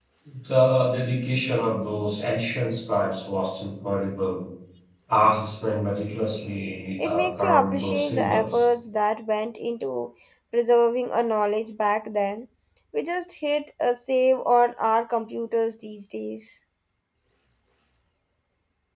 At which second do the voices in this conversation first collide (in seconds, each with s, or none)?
7.0 s